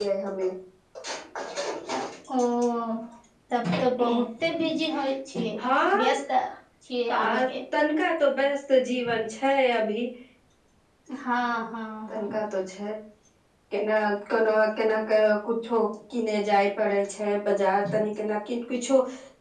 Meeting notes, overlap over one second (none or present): none